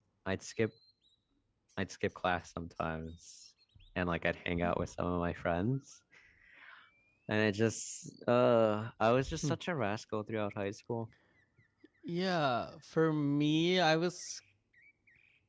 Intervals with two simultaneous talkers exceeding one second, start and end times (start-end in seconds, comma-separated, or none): none